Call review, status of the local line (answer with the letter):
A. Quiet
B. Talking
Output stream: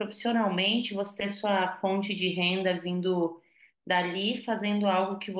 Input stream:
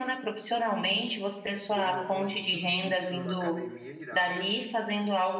B